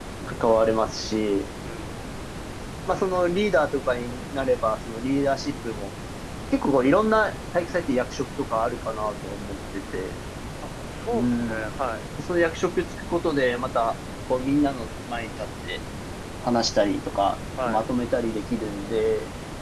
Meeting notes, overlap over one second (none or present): none